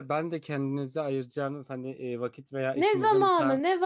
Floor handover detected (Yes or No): Yes